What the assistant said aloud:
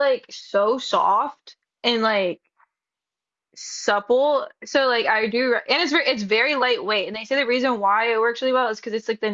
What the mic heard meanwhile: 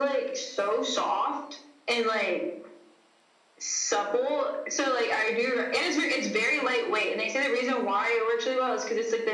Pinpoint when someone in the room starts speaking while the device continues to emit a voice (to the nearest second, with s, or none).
none